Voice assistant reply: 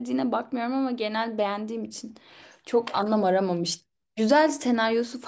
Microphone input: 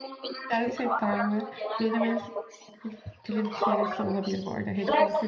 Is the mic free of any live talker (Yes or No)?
No